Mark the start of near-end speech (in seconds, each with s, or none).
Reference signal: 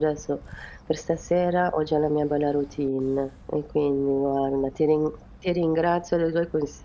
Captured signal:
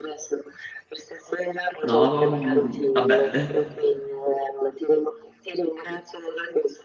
1.8 s